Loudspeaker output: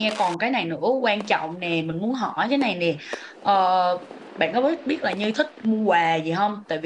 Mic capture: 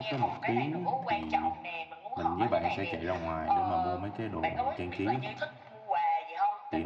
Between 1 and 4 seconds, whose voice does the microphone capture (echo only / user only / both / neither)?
both